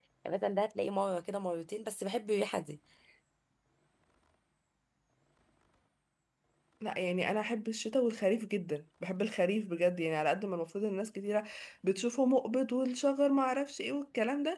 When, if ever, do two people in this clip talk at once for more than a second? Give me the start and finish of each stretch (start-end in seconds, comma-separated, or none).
none